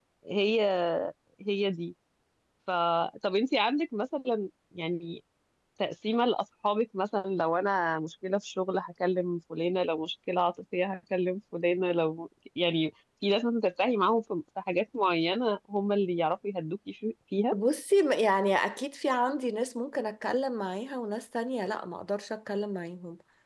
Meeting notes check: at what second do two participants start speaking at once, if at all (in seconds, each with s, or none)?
none